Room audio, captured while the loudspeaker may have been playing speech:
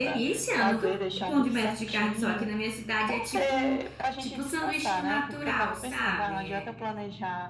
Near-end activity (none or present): present